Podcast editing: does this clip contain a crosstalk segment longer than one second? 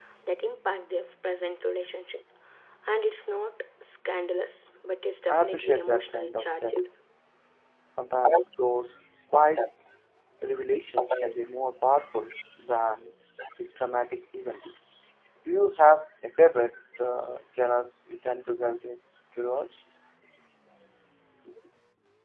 Yes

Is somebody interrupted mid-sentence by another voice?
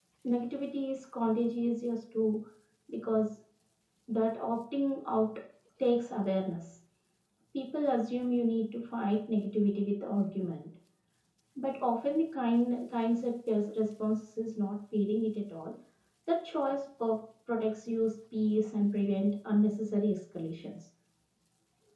No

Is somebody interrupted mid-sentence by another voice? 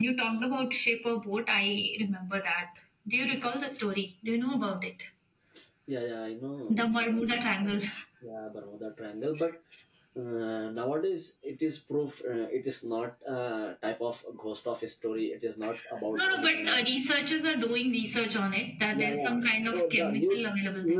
Yes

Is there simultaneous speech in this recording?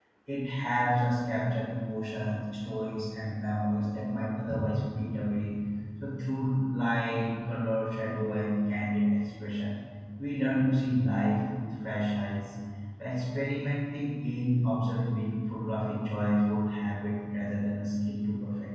No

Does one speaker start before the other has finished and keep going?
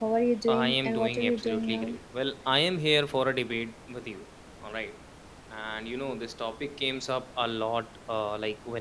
Yes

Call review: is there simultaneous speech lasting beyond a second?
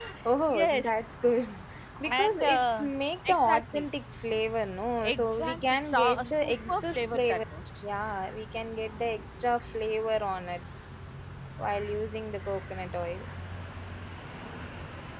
Yes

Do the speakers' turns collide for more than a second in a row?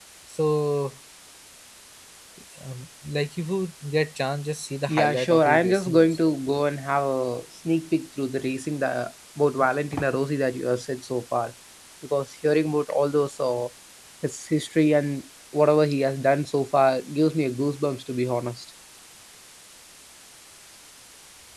Yes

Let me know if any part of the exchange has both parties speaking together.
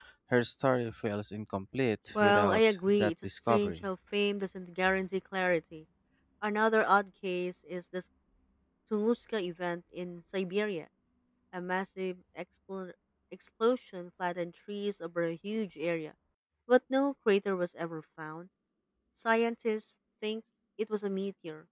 Yes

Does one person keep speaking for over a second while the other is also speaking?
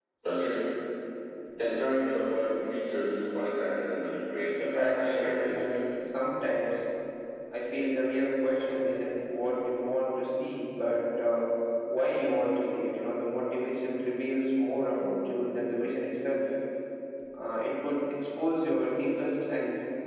Yes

